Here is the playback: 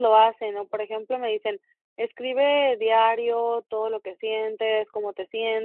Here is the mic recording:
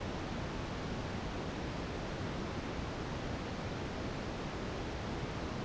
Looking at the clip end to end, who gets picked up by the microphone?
neither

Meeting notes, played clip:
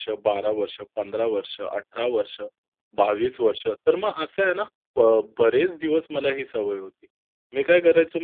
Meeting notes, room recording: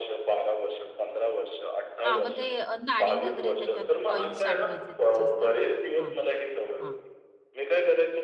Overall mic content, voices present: both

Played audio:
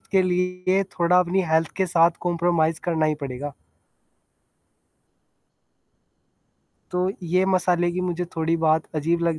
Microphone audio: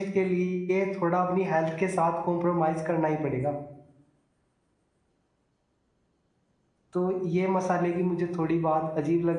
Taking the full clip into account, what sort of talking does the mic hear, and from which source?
echo only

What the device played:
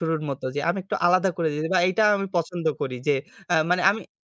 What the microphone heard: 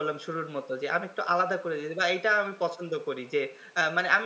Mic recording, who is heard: echo only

